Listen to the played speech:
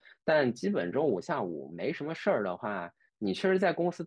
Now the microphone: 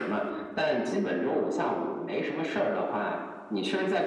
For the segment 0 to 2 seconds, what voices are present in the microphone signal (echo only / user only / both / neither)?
echo only